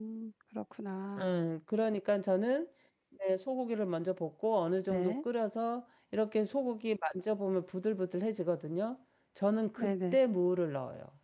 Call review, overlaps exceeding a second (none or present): none